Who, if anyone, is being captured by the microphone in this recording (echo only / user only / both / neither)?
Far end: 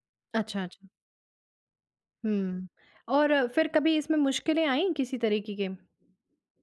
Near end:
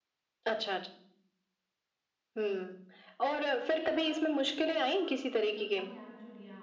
both